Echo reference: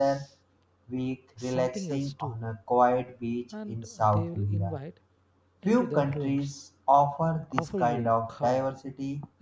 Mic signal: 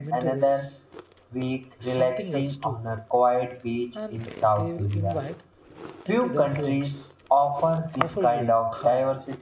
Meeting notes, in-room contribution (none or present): none